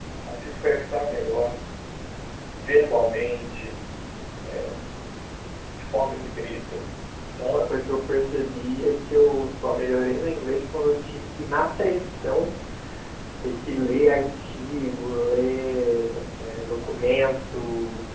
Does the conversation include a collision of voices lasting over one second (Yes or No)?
No